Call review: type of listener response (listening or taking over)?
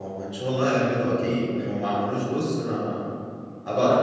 taking over